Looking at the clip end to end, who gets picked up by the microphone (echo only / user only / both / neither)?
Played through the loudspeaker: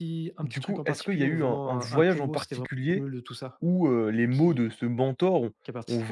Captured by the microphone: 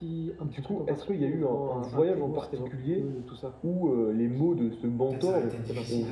both